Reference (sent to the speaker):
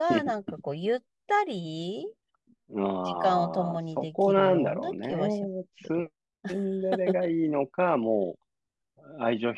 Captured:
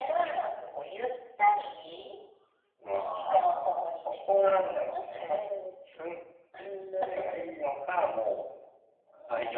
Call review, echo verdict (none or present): present